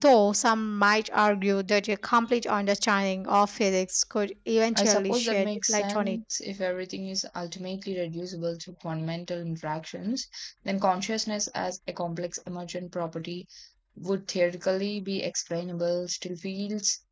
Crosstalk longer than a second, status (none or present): present